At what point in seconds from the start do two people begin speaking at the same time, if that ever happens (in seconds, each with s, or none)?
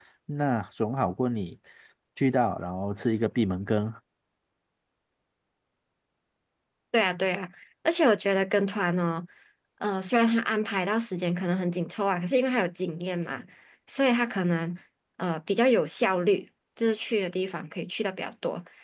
none